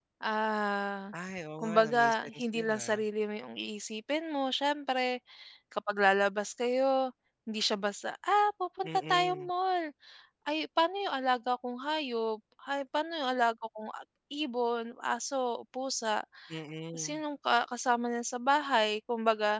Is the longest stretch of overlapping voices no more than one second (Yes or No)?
No